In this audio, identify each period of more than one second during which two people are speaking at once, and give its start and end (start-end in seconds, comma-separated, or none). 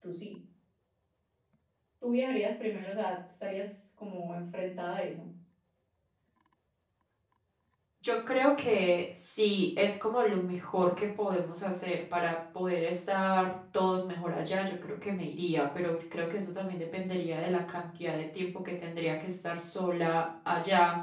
none